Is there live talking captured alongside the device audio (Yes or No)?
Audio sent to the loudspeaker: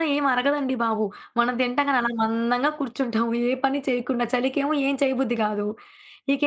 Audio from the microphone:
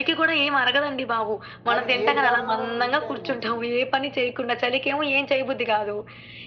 Yes